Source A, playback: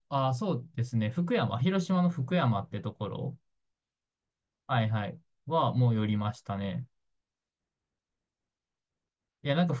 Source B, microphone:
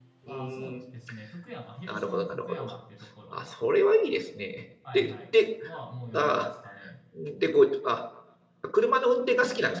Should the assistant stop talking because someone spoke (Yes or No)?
Yes